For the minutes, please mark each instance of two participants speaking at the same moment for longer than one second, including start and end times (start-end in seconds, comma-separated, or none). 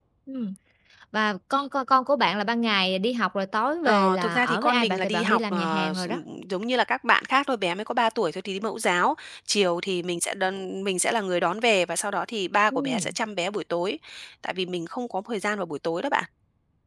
3.9-6.2